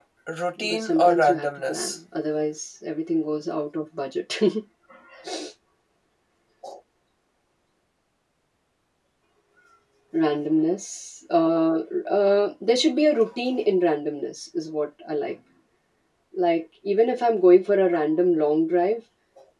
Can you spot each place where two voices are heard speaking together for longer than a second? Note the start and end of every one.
0.6-1.9

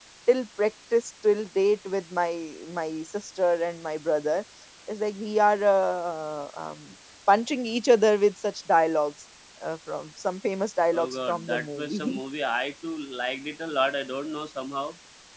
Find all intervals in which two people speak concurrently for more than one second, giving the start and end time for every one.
10.9-12.2

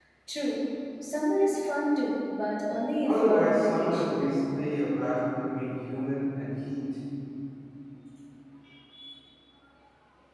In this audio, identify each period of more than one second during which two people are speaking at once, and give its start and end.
3.0-4.3

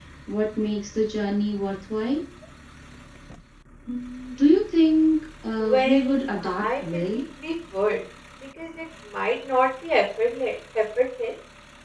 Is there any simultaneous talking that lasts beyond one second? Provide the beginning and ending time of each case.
5.6-7.2

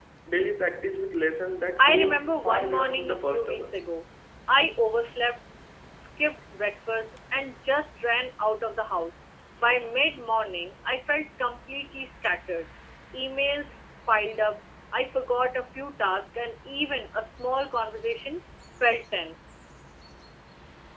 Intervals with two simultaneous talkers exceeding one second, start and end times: 1.8-3.8

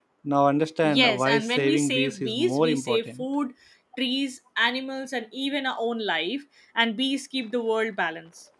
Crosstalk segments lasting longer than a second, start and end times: 0.8-3.2

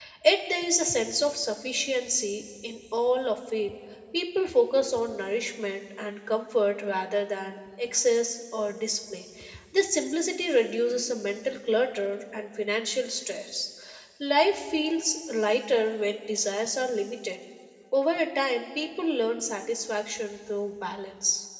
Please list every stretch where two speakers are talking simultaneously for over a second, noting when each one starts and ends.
none

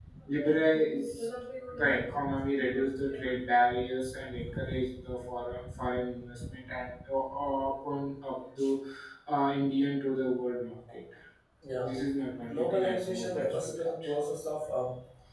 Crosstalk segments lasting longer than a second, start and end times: 12.4-13.9

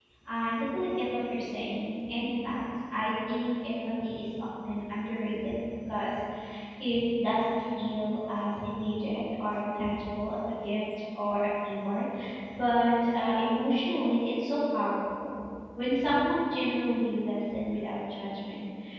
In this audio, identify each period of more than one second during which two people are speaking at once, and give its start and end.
none

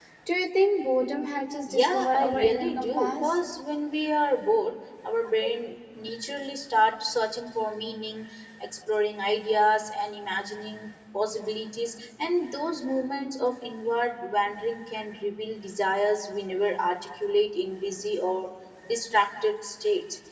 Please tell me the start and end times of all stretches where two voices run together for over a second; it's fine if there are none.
1.7-3.3

